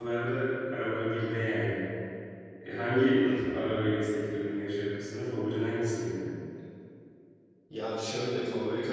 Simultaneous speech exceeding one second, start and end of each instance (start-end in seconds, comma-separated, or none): none